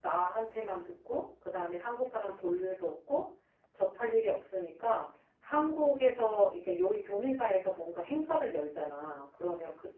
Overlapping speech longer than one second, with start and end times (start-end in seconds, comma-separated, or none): none